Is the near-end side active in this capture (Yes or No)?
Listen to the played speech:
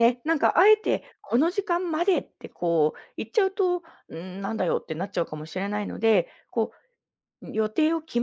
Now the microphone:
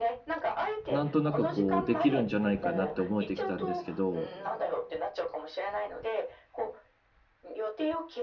Yes